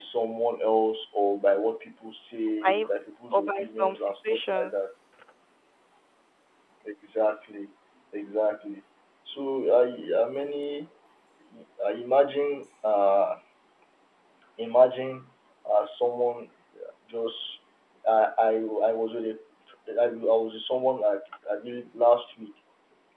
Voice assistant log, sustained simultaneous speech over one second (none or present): present